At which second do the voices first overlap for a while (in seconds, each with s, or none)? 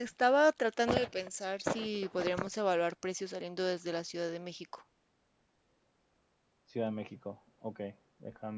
none